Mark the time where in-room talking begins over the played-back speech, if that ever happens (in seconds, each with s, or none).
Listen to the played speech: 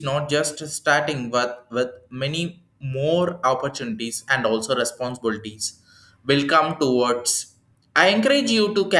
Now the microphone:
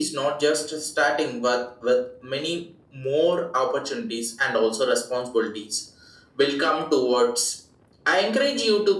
none